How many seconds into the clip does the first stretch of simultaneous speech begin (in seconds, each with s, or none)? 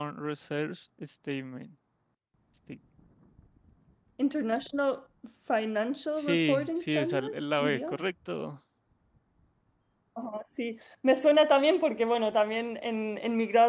6.2 s